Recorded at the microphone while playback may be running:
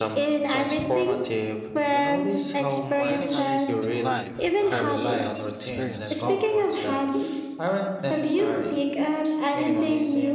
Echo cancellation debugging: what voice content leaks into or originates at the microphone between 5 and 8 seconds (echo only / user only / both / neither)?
both